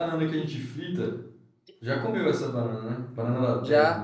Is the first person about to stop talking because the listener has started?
Yes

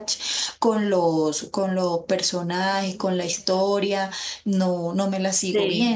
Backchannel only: No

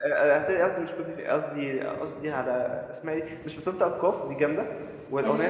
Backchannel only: Yes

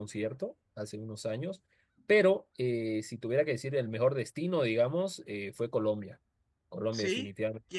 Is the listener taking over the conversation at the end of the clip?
Yes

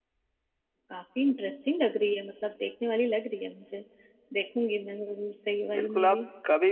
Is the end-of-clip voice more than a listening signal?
Yes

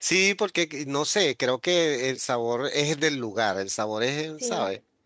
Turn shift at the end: Yes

